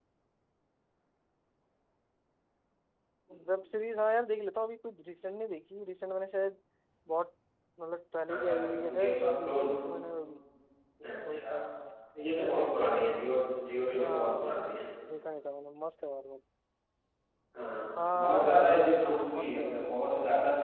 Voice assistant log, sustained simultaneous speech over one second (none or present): present